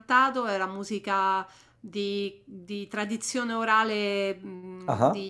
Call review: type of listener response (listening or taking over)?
listening